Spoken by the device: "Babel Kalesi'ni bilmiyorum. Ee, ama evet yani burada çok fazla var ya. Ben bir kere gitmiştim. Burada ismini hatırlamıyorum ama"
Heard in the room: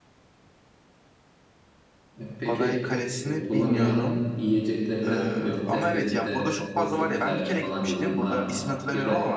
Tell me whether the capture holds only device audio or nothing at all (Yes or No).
No